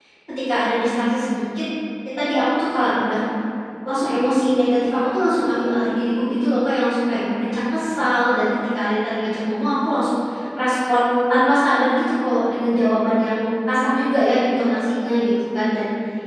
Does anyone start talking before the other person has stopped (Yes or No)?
No